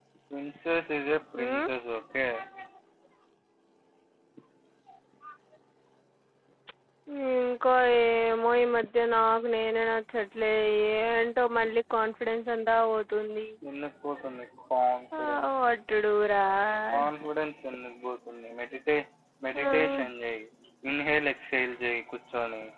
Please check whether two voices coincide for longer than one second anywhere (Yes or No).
No